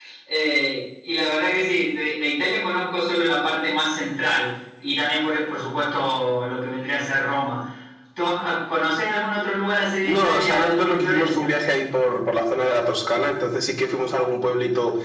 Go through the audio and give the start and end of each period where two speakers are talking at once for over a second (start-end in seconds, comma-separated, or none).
10.0-11.6